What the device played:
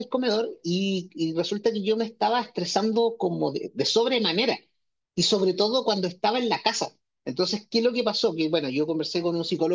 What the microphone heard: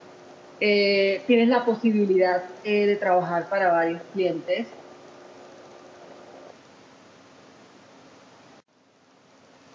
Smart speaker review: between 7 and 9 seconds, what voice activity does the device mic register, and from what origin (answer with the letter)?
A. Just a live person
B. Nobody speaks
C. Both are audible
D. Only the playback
B